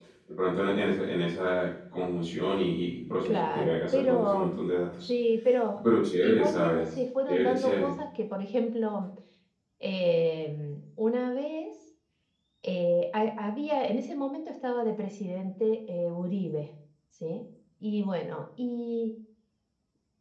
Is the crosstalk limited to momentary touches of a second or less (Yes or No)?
No